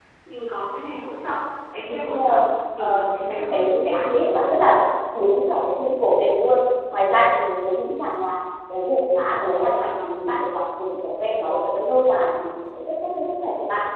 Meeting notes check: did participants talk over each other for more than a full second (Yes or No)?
Yes